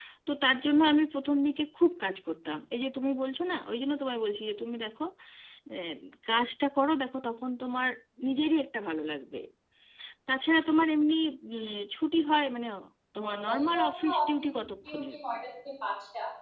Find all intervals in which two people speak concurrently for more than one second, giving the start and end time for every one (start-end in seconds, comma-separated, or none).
13.2-15.2